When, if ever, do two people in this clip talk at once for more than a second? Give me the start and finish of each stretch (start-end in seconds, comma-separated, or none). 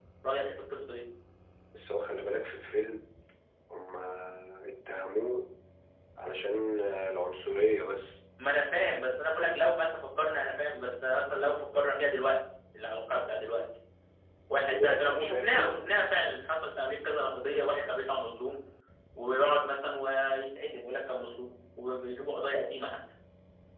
14.6-15.9